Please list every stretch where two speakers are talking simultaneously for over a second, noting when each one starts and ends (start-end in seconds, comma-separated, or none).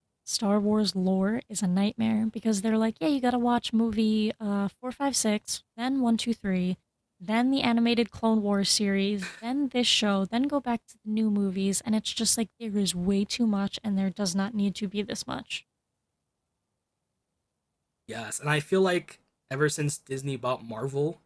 none